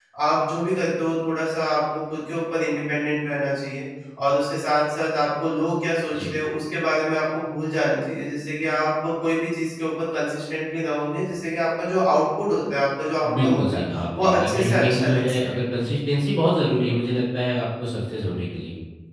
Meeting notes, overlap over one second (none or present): present